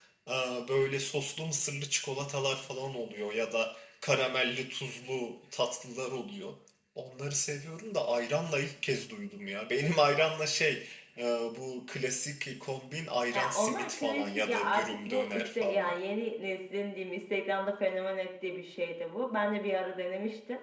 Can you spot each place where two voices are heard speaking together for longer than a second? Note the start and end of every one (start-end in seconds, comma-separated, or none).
13.3-15.9